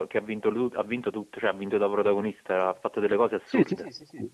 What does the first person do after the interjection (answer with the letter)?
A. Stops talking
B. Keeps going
A